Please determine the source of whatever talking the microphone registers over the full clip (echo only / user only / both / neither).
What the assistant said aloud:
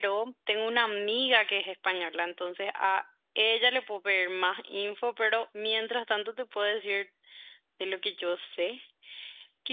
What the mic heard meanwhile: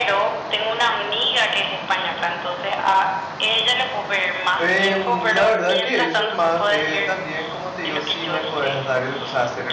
both